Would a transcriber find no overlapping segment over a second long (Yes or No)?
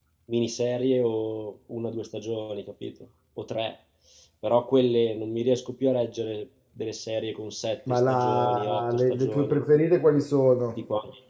No